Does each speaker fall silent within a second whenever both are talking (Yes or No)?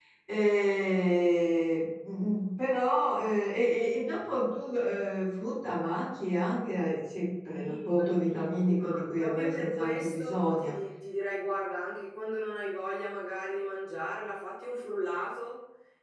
No